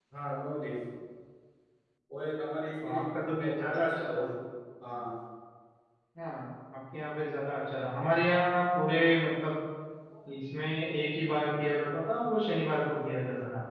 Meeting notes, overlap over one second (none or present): present